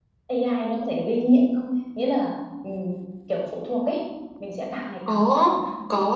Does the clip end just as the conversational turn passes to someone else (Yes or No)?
Yes